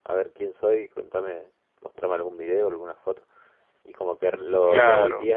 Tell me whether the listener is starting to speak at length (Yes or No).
No